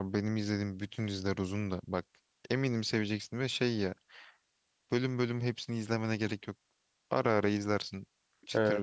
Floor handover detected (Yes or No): Yes